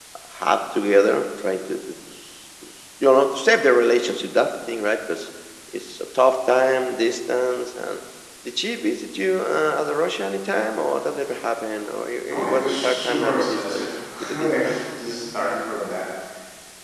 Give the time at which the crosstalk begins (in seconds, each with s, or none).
12.3 s